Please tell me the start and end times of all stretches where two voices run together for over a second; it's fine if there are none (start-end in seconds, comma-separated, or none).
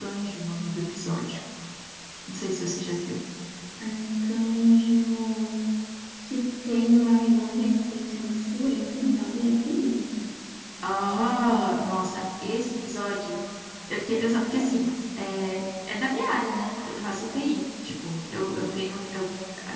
none